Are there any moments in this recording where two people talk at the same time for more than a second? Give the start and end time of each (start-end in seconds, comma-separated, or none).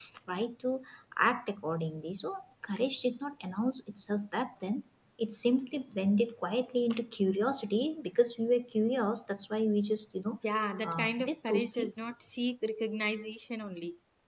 10.8-12.1